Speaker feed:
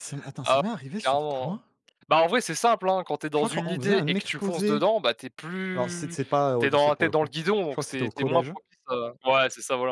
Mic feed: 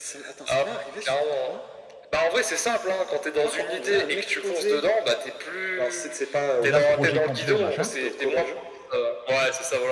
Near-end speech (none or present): present